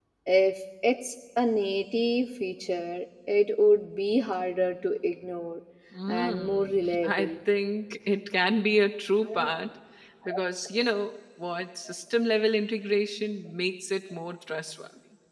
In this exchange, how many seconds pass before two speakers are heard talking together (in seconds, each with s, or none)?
6.1 s